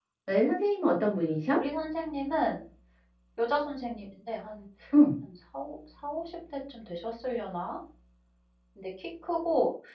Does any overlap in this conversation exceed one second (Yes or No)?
No